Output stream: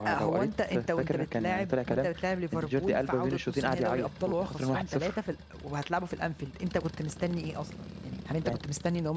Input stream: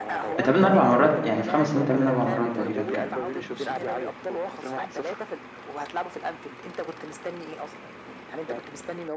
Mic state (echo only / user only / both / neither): both